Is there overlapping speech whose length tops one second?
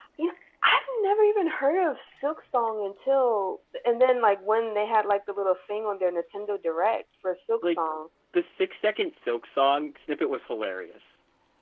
No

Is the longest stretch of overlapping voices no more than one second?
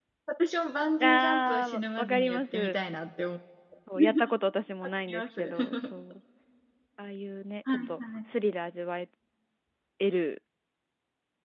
No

